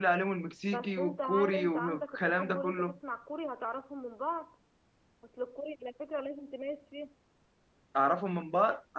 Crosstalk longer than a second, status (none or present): present